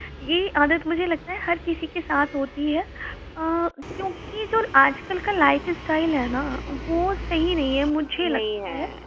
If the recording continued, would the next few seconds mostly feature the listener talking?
Yes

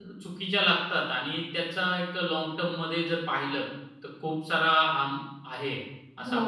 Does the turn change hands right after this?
Yes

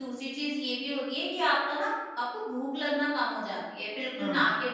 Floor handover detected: No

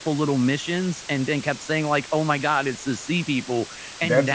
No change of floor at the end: No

